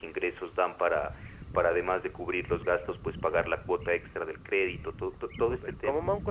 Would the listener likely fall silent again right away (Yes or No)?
No